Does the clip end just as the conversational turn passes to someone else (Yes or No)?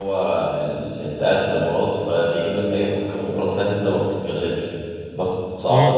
No